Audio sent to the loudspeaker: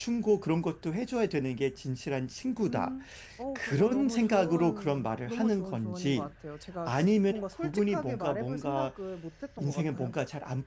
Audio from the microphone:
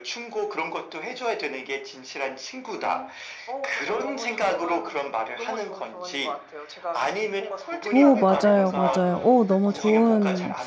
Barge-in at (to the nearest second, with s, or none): 8 s